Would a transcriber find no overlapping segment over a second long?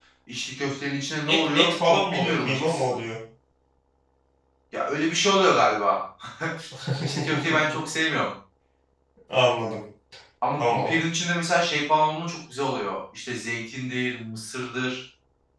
No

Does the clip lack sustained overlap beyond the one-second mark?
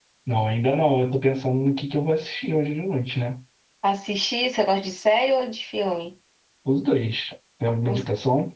Yes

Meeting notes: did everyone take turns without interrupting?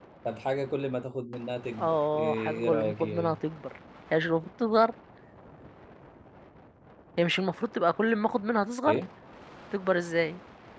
No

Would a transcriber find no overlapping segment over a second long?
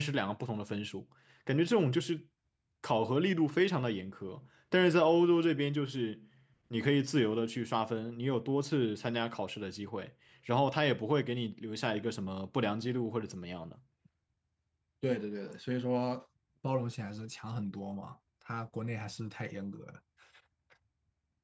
Yes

